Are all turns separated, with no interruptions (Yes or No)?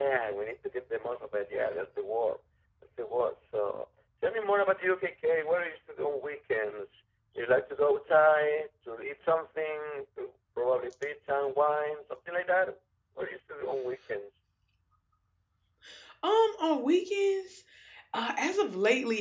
Yes